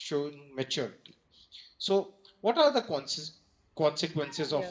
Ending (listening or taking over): listening